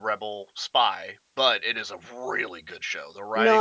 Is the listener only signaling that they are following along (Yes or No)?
No